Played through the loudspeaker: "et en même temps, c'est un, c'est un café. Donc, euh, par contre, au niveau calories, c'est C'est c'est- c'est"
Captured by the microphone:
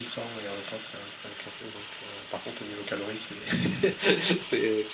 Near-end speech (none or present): none